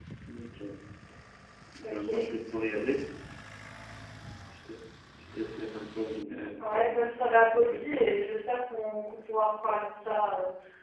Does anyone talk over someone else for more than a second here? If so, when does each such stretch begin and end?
6.6-8.1

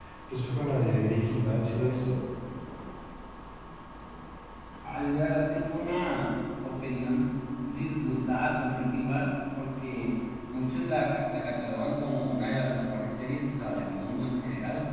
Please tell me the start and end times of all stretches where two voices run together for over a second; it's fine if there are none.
none

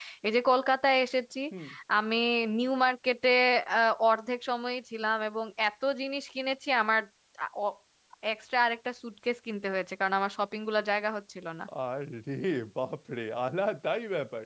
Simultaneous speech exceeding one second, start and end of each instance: none

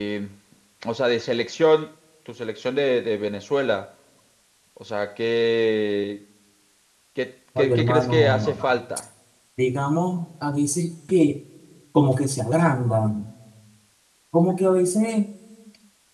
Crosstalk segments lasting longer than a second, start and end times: 7.6-8.8

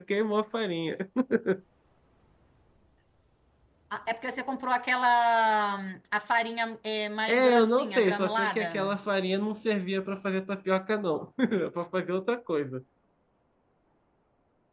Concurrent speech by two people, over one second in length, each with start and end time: 7.3-9.0

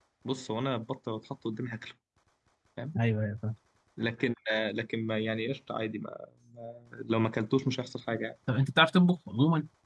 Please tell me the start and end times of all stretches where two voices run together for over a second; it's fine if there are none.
none

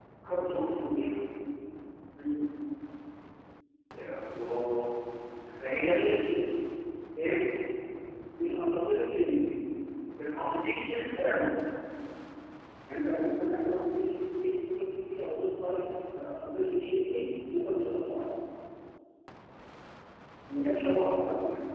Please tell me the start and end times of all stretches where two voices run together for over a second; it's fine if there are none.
none

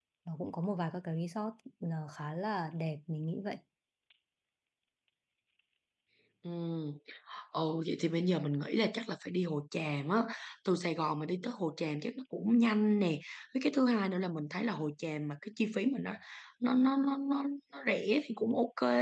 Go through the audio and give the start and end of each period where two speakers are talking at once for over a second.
none

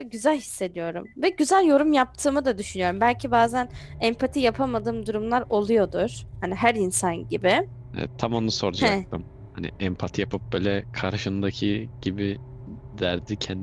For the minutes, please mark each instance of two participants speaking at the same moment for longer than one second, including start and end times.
none

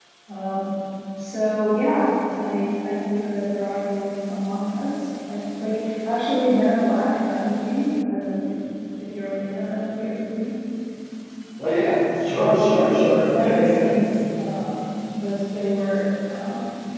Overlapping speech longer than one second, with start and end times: 12.3-13.9

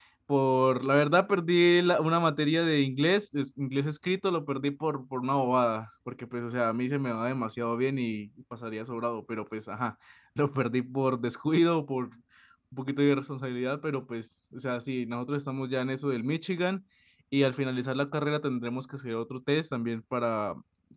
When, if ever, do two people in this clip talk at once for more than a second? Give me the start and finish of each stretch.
none

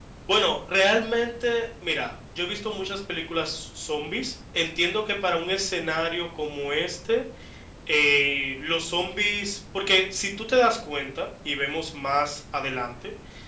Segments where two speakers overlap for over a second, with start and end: none

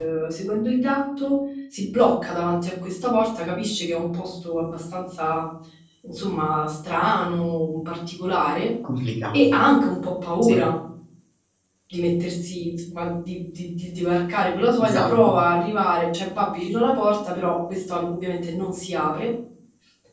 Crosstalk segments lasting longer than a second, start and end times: none

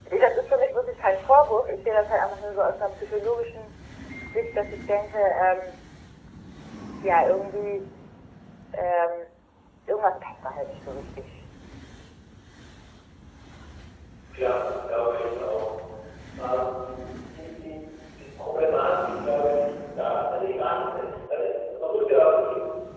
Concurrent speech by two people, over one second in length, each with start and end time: none

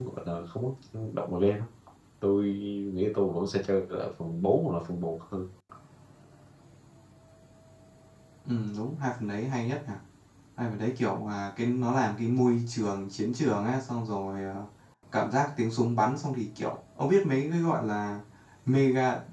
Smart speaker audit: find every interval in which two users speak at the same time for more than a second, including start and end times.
none

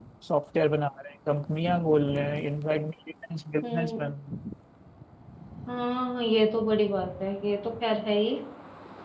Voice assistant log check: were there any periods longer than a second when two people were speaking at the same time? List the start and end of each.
none

